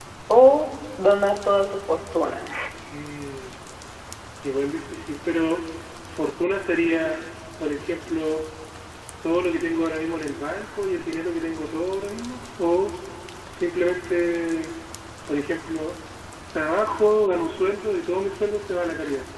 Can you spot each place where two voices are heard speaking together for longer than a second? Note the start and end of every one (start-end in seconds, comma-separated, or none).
none